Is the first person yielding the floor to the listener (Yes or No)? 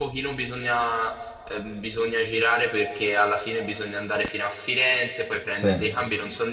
No